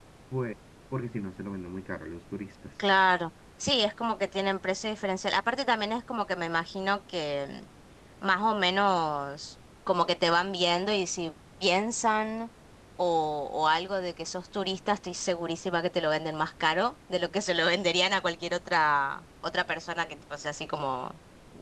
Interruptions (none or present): none